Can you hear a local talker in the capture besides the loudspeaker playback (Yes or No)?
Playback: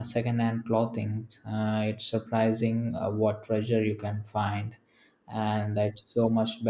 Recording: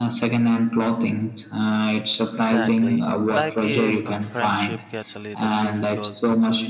Yes